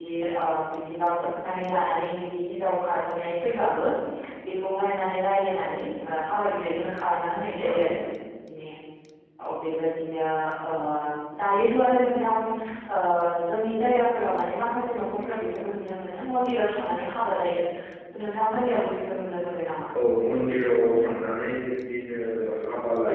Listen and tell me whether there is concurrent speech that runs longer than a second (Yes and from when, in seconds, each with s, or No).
No